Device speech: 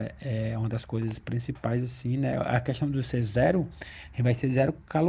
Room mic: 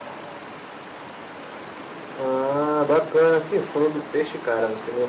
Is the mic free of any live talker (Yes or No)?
No